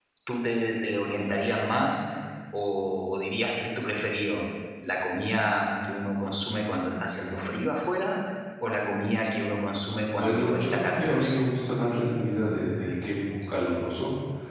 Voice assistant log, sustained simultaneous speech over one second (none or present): present